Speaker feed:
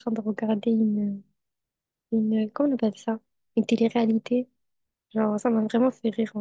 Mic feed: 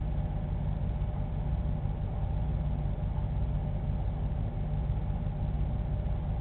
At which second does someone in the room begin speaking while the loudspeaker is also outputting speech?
none

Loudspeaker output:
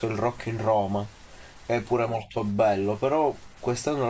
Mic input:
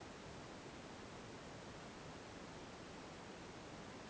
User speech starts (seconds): none

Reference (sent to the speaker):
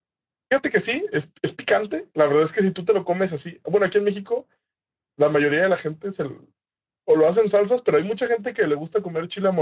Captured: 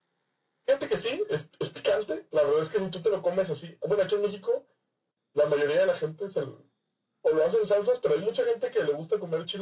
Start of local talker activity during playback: none

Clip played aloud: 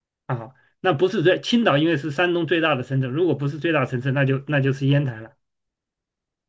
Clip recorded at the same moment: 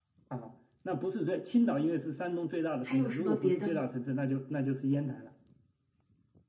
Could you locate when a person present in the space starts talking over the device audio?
2.8 s

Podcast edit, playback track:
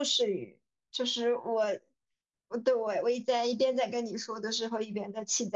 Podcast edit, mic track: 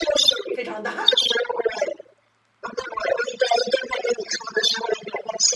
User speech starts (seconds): 0.5 s

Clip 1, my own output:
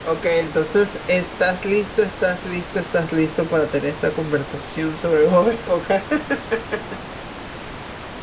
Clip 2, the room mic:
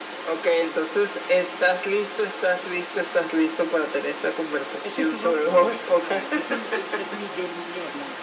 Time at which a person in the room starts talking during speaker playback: 4.8 s

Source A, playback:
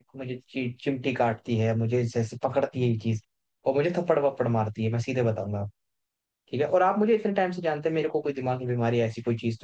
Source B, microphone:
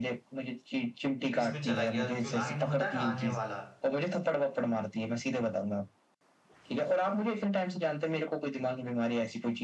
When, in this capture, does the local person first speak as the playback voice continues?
1.4 s

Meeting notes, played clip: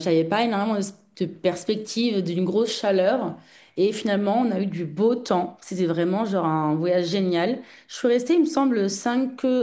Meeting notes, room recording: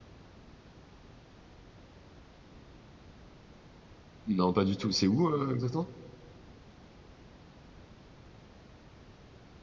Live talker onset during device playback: 4.3 s

